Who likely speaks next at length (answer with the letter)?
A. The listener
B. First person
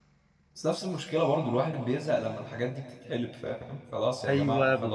A